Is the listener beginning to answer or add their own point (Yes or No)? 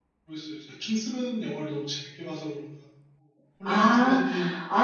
Yes